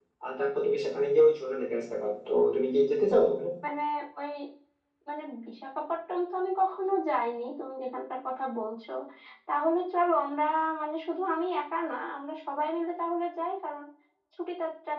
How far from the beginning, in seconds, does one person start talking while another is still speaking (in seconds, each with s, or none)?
none